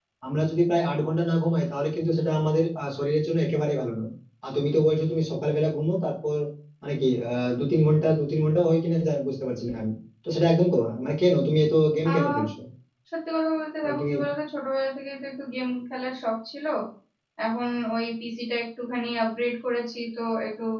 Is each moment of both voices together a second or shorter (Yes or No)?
Yes